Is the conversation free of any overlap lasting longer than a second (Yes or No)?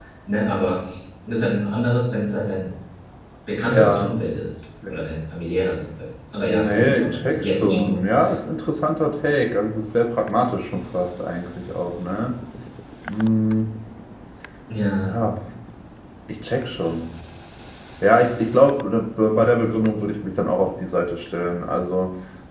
No